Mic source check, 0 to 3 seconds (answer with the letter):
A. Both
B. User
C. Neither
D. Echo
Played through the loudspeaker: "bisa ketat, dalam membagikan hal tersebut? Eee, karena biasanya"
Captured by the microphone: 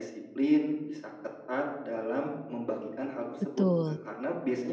D